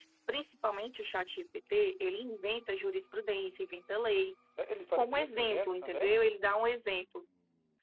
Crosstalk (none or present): present